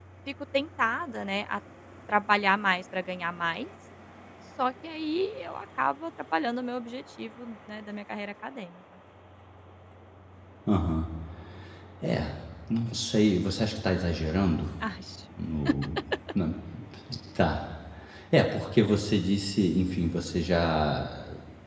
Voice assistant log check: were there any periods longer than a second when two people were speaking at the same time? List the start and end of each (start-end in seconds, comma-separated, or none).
none